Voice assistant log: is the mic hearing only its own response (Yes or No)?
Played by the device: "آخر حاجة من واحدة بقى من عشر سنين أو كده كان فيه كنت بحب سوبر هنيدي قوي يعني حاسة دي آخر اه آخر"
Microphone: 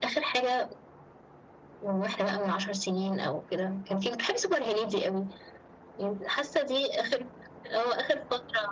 Yes